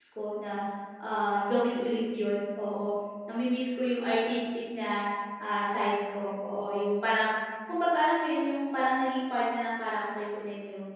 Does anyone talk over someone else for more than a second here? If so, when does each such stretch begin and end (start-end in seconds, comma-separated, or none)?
none